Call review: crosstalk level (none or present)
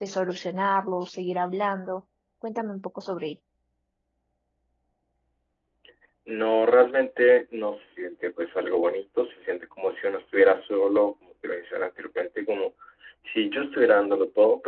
none